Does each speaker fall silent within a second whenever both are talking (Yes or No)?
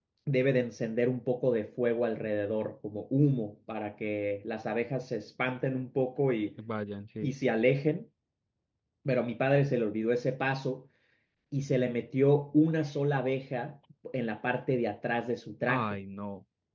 Yes